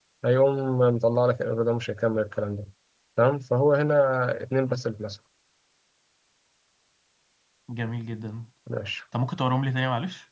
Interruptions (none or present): none